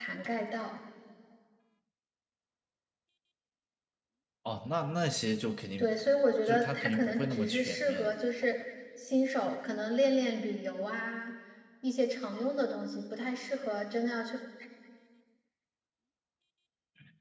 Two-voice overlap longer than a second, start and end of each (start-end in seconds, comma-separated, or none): 6.4-8.2